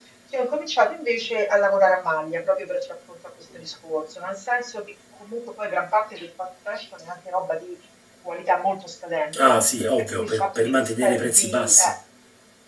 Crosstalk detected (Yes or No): Yes